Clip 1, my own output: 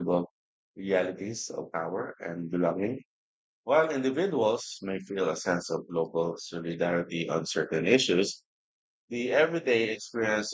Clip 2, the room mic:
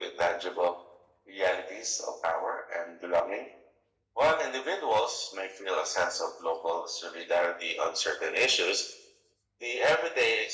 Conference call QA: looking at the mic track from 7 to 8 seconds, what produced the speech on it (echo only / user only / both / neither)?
echo only